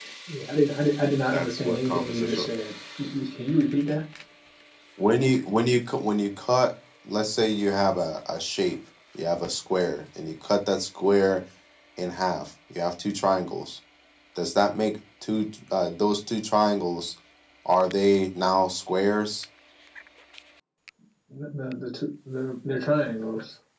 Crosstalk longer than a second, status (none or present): present